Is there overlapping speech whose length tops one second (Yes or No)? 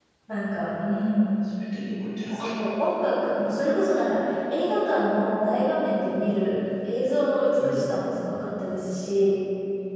No